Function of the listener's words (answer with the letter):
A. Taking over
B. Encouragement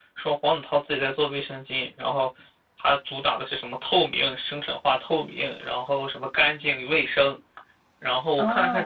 A